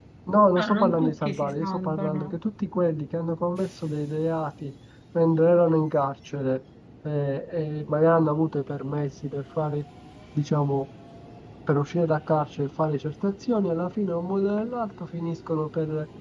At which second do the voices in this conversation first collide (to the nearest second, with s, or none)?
1 s